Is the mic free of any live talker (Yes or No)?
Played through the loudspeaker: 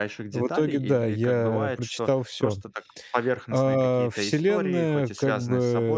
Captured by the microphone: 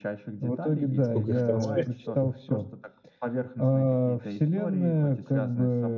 No